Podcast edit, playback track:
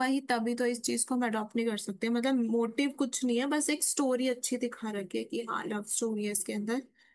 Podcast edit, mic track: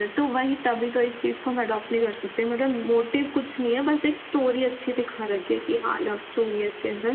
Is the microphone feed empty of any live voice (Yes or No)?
Yes